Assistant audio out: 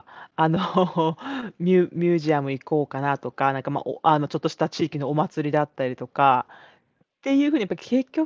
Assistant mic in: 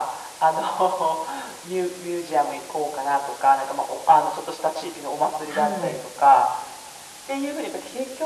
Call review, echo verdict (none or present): present